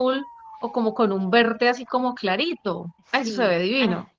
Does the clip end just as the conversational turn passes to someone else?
Yes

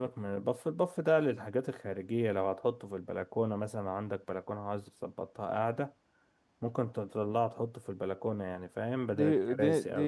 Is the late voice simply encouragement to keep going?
No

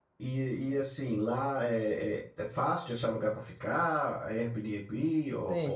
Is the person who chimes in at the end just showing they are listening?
No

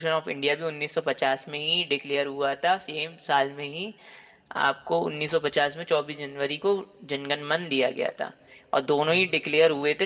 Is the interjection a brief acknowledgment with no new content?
Yes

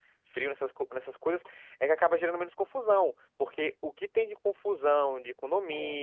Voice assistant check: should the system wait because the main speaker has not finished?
Yes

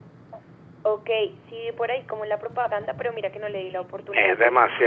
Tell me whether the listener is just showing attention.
No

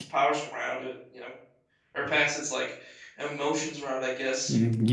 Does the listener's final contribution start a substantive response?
Yes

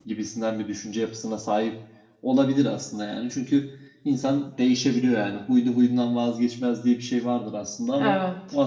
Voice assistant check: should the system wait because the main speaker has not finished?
Yes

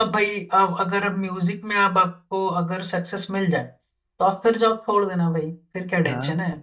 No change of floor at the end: No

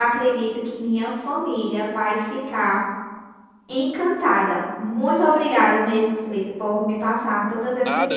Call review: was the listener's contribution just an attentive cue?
No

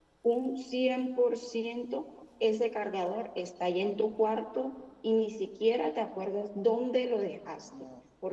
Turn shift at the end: No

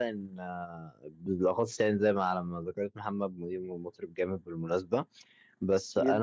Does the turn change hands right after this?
No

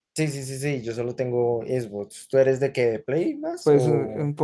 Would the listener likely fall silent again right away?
No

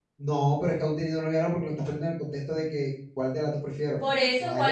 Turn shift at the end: Yes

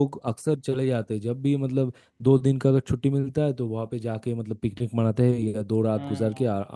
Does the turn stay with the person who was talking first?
Yes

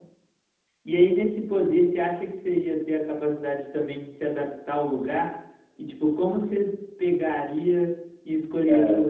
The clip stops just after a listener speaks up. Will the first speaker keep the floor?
Yes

